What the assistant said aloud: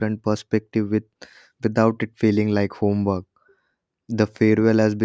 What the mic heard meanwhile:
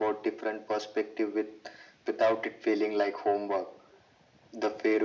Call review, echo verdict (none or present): present